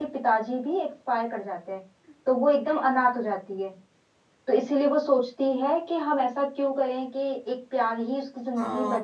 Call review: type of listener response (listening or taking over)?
taking over